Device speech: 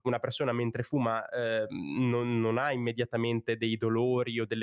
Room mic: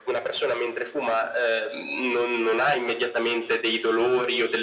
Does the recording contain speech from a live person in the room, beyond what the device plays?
No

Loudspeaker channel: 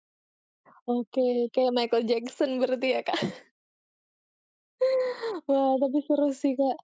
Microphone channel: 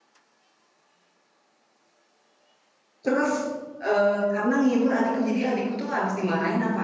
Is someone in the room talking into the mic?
Yes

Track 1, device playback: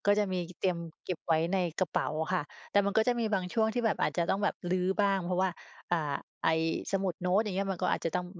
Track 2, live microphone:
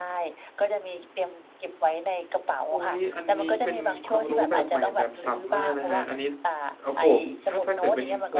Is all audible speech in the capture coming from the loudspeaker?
No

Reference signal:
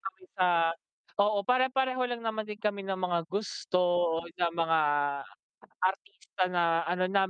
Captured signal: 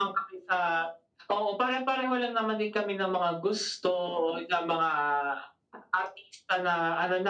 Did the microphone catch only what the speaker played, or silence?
Yes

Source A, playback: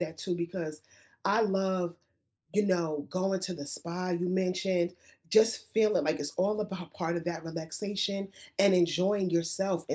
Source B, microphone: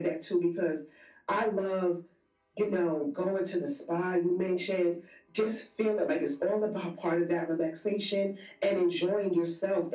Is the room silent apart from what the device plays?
Yes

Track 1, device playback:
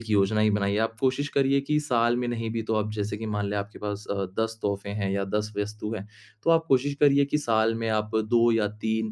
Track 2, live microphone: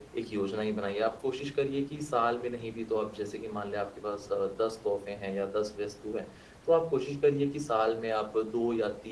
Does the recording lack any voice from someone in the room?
Yes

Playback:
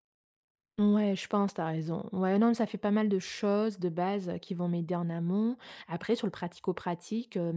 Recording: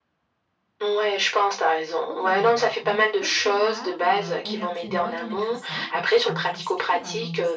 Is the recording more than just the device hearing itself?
Yes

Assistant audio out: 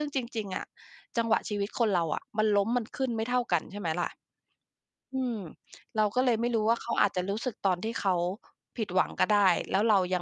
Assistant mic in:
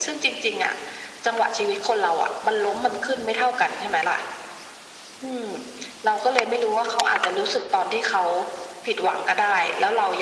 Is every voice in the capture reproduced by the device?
Yes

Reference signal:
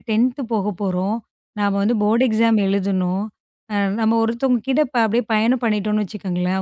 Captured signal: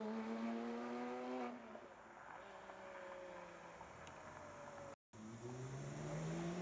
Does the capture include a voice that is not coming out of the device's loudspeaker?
No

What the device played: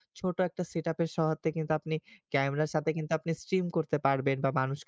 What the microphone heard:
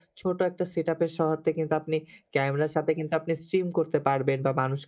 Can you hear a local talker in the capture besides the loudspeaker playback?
No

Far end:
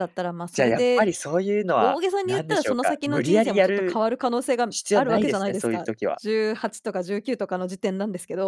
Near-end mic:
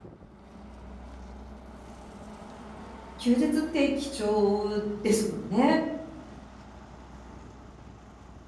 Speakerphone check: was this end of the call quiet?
No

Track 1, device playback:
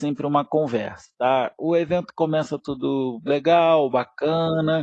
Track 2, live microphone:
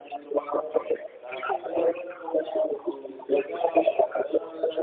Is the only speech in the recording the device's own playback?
No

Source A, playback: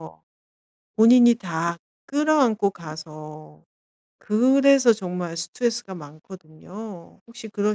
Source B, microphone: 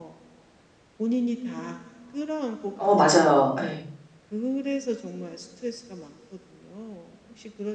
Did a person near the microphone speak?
Yes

